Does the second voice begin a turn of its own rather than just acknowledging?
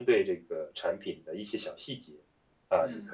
No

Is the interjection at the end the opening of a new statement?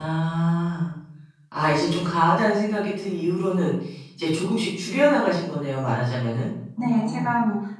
Yes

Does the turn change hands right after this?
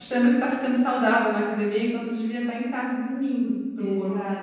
Yes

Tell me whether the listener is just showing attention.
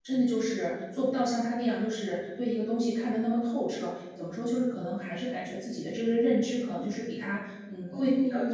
No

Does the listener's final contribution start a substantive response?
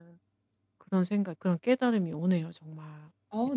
Yes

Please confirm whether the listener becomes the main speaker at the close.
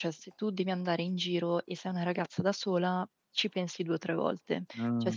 No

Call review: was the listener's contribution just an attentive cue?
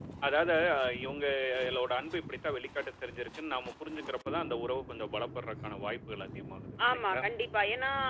No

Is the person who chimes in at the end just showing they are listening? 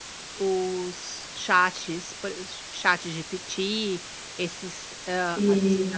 Yes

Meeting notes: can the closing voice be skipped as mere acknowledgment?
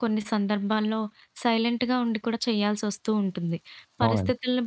Yes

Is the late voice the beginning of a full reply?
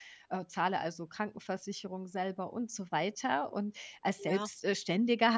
No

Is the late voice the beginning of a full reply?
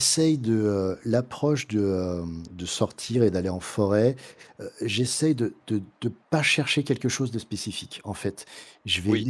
No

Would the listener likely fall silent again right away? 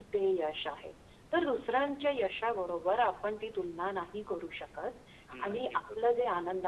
Yes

